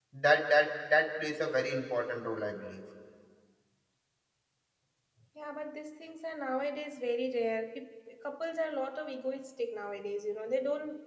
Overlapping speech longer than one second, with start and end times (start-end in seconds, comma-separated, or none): none